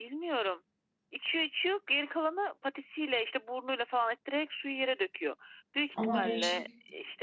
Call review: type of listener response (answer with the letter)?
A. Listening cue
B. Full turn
A